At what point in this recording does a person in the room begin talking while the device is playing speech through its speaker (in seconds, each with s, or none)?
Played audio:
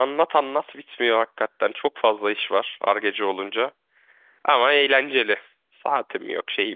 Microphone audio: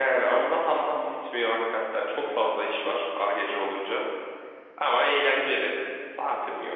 none